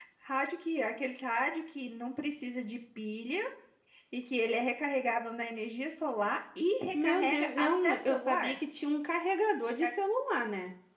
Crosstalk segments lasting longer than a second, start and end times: 6.9-8.6

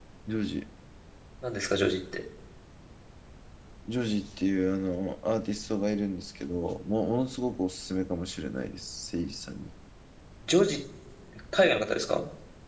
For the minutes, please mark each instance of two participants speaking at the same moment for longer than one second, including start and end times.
none

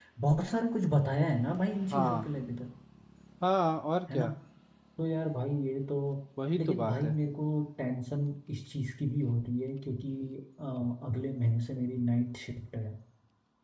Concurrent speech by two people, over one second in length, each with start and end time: none

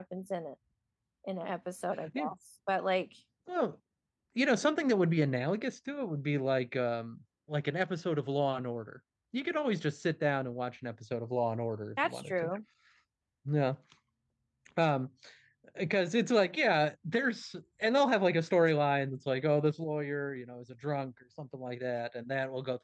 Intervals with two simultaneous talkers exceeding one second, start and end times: none

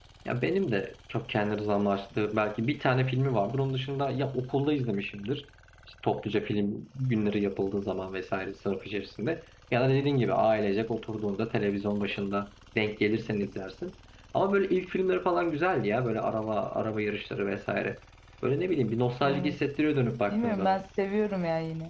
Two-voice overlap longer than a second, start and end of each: none

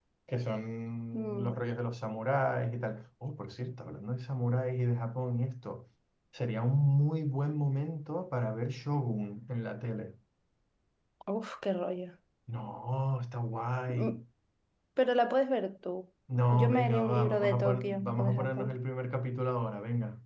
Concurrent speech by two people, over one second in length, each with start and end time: 16.5-18.8

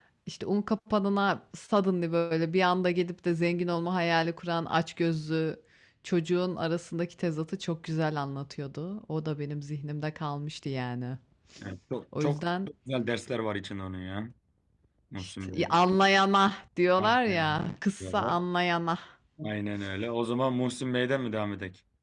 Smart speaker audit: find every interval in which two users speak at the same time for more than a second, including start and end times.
17.0-18.3

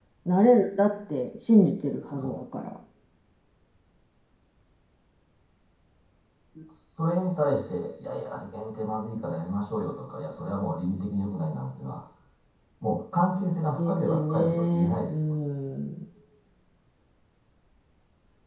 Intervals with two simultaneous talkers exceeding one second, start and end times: 13.8-15.1

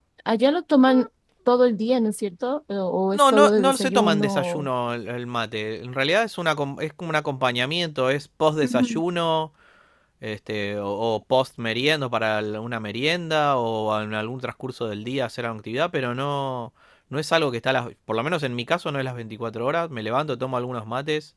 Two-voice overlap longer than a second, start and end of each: 3.1-4.7

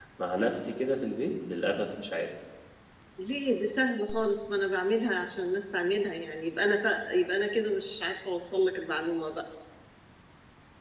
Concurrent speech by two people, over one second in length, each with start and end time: none

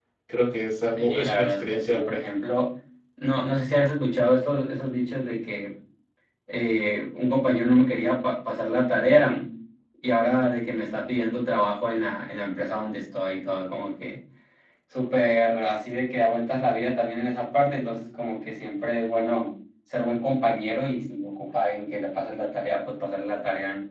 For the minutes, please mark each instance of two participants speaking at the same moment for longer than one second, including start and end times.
1.0-2.3

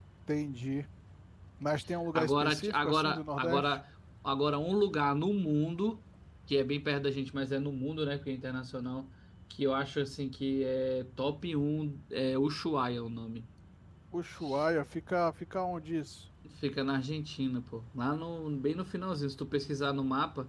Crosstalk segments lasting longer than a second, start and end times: 2.2-3.8

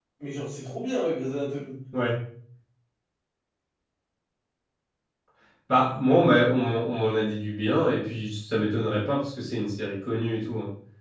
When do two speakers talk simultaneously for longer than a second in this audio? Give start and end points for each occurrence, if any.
none

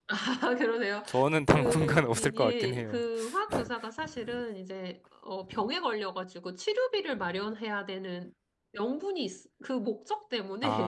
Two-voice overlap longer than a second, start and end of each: 1.6-3.0

